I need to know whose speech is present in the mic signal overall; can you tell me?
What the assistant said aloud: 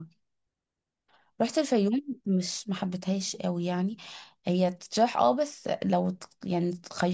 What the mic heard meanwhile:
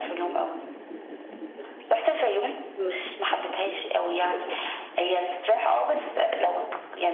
echo only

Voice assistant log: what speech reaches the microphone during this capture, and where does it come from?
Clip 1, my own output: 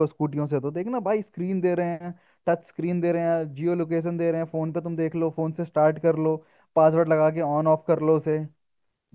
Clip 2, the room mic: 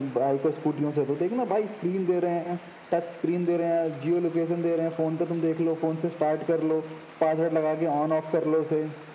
echo only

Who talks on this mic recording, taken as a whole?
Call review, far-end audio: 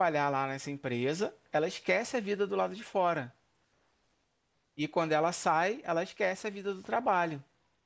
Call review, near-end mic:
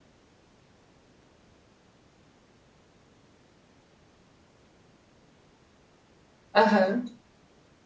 user only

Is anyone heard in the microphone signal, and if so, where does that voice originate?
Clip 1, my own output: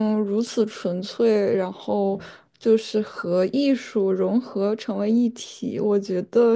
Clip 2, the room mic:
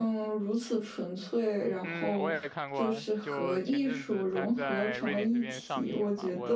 both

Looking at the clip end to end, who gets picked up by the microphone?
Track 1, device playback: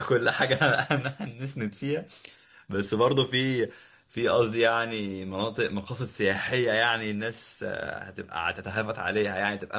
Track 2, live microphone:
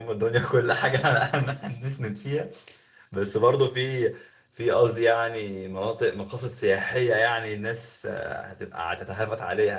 echo only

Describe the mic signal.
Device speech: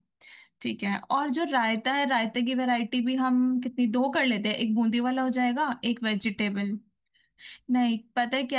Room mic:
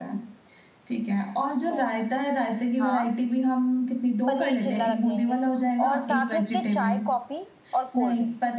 both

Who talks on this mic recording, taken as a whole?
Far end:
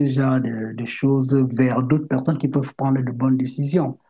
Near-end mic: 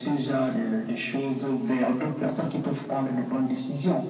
echo only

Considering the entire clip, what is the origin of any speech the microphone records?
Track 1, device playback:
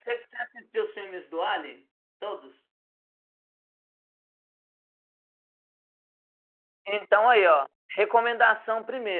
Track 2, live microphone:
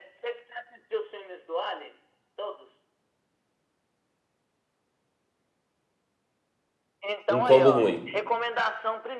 both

